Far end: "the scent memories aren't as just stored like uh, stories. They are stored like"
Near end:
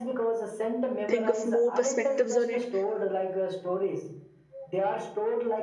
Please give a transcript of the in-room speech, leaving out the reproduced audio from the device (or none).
think of more perspectives on it,